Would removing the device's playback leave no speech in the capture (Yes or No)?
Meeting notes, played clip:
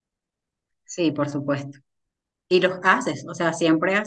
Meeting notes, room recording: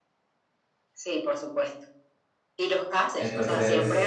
No